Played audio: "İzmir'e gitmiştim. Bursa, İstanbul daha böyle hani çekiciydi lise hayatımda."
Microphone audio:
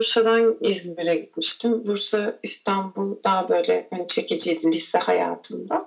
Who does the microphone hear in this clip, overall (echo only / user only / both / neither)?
echo only